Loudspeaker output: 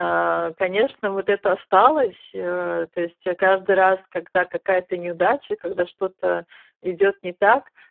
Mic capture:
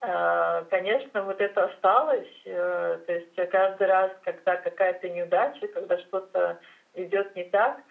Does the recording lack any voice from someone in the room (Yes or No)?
Yes